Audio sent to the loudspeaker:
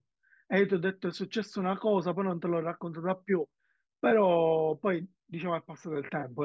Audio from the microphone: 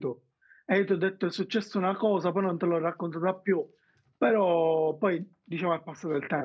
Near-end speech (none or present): none